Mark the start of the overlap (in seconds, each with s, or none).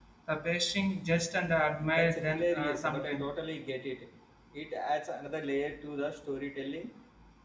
2.0 s